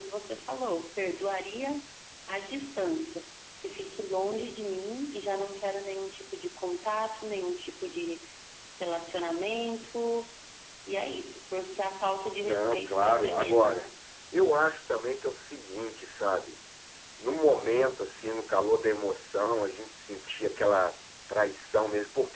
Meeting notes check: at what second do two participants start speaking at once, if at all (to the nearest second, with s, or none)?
12 s